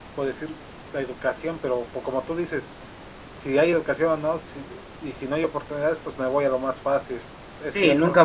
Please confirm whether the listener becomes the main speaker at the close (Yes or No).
Yes